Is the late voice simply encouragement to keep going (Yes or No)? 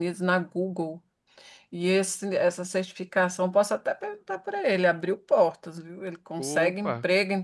Yes